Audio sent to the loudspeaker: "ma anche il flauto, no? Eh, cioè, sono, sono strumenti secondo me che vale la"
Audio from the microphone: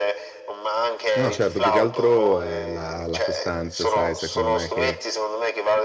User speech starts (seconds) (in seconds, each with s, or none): 1.1 s